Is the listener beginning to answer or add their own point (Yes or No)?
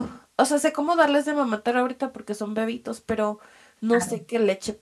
No